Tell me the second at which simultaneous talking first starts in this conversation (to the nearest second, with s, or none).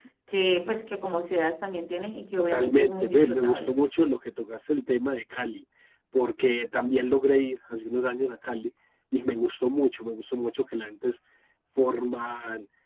3 s